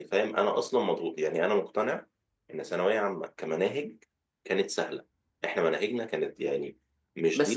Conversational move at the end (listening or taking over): taking over